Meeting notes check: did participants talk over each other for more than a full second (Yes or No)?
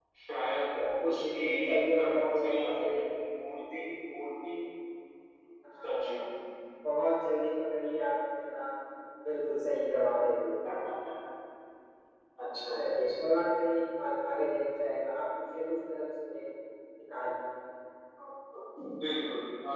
Yes